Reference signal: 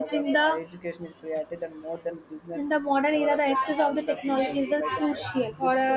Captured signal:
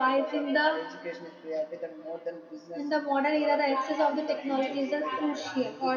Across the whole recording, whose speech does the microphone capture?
echo only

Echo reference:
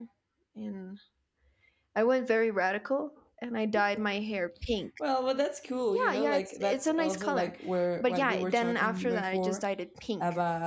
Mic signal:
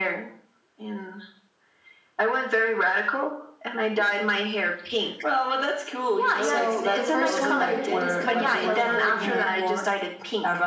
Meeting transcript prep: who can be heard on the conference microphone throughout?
both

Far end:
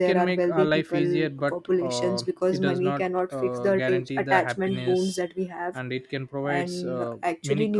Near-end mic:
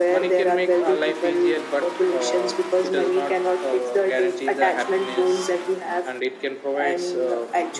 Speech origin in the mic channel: echo only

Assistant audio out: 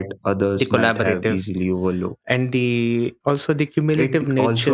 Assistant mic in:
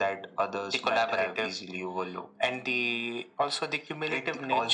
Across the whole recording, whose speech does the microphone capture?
echo only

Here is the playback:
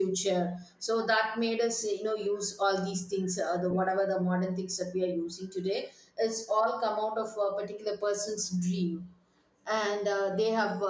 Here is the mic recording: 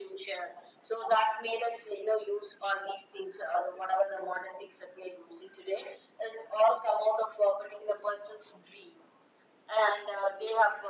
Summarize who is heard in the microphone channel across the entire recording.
echo only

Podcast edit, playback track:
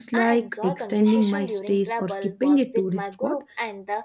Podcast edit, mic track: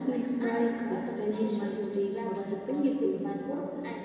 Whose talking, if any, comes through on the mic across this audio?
echo only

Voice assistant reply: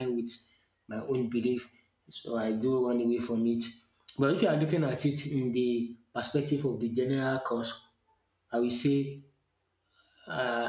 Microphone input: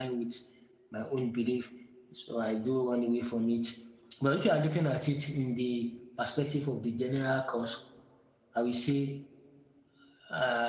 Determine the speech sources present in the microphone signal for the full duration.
echo only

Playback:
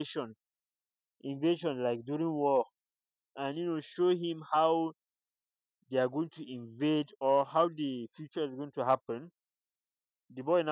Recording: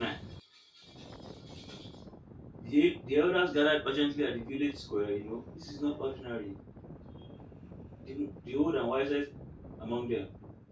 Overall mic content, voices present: user only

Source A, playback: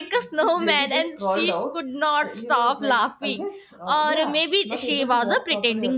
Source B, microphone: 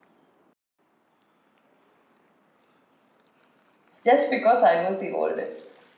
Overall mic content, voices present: user only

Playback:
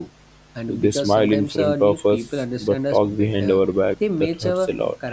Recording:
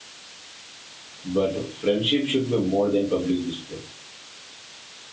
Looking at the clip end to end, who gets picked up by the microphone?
user only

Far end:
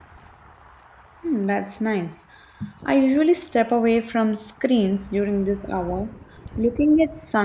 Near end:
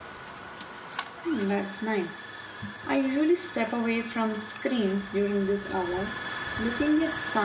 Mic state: echo only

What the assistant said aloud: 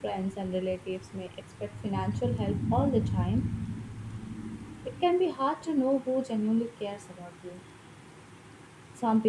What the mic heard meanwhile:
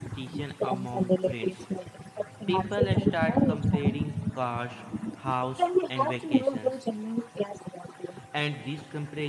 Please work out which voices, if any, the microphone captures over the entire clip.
both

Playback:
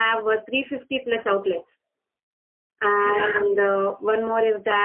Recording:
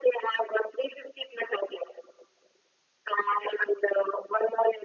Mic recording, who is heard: echo only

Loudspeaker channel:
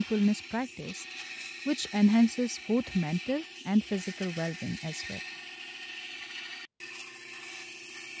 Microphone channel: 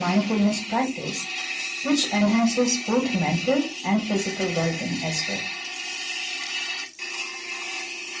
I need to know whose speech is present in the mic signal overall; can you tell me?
echo only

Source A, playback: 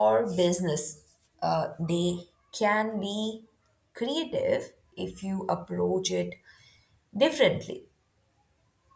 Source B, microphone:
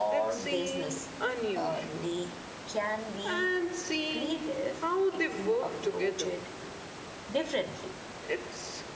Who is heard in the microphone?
both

